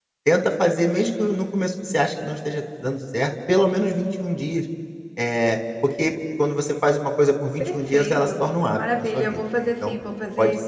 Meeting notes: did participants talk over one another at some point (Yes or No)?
Yes